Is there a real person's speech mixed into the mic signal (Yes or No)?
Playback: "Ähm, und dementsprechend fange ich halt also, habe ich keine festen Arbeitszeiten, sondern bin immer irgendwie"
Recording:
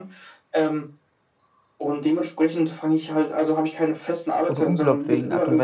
Yes